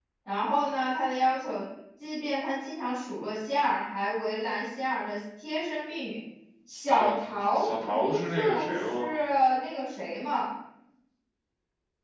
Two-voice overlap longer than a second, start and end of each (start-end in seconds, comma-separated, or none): 7.6-9.2